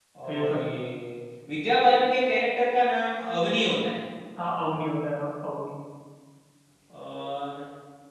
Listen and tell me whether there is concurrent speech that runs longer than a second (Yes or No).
No